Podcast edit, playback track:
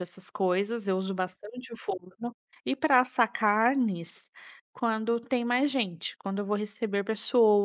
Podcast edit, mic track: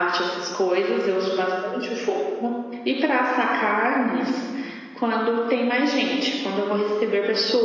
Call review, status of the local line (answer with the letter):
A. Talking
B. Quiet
B